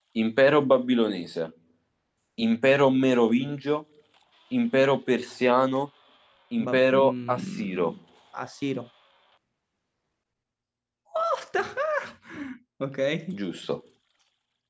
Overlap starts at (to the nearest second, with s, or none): 7 s